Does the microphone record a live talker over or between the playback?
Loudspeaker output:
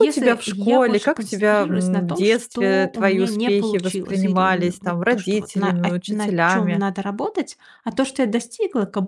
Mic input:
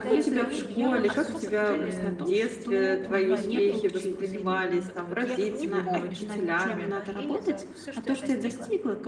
Yes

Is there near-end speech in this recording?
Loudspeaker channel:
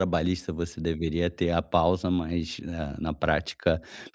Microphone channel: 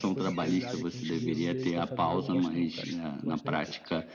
Yes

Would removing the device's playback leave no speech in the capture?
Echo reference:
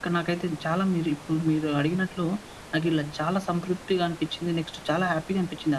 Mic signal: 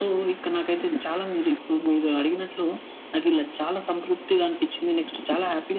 Yes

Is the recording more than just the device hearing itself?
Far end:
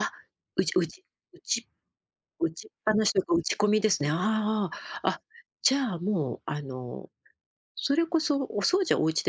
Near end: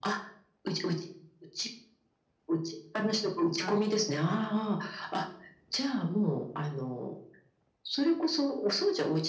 Yes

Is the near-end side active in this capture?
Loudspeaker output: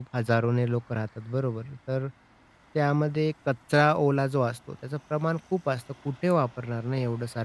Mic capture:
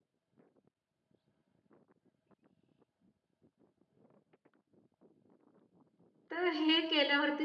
Yes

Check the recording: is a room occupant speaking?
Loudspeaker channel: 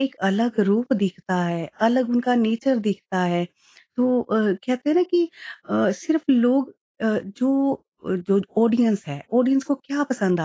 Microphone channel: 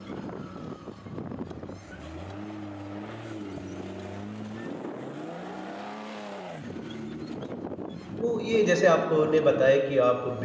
Yes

